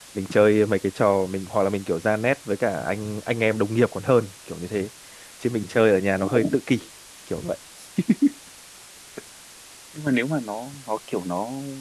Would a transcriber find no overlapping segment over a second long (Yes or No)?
Yes